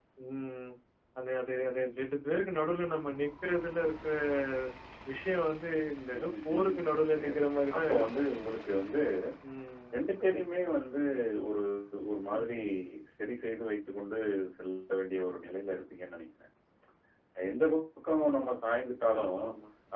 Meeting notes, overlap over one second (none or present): present